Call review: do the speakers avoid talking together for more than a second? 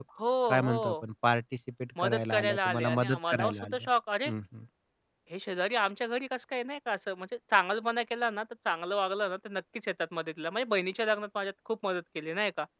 No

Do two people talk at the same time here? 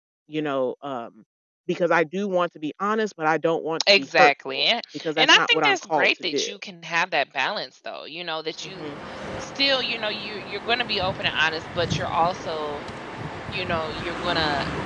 Yes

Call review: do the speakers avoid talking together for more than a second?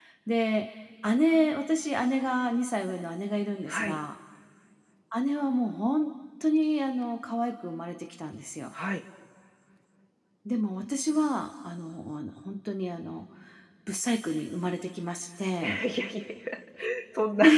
Yes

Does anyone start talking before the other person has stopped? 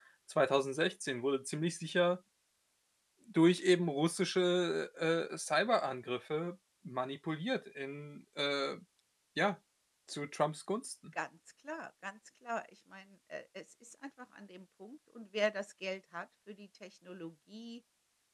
No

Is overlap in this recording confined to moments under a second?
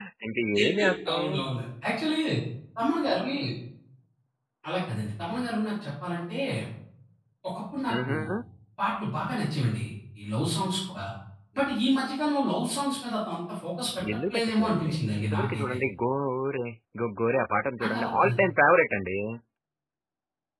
No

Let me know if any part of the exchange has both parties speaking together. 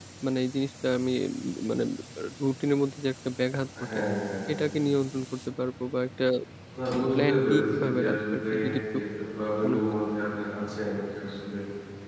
Yes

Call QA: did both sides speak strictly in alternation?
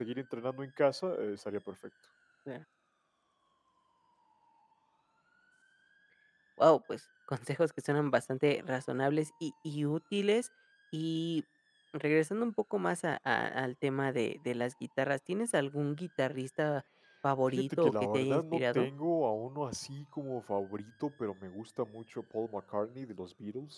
No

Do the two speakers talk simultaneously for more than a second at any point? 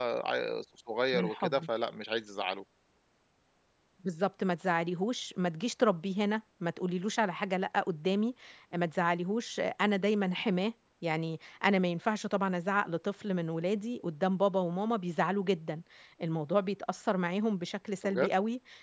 No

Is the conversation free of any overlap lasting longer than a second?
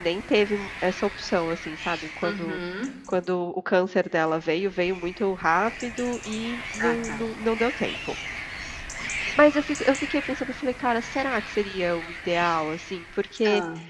Yes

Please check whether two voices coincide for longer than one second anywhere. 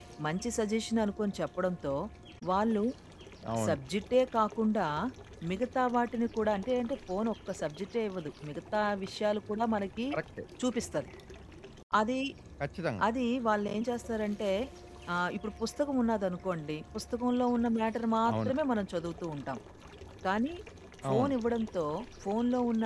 No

